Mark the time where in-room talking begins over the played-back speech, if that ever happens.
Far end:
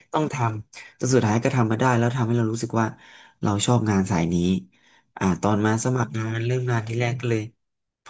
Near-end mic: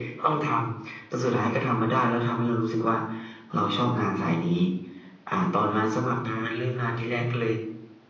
none

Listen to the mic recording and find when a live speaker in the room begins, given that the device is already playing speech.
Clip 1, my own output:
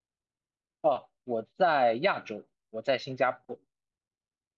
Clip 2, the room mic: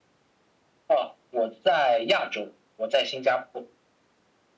none

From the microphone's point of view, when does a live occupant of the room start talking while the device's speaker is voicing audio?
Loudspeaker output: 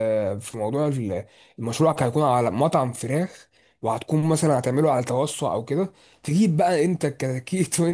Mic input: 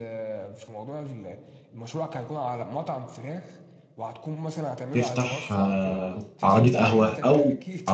4.9 s

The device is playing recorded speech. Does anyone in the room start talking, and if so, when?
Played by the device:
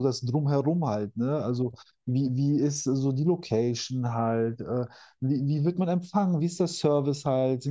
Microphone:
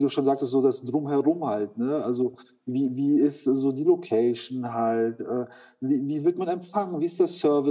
none

